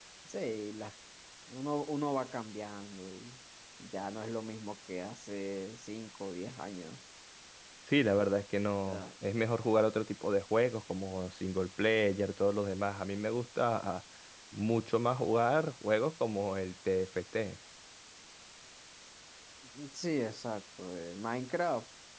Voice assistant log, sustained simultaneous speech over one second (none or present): none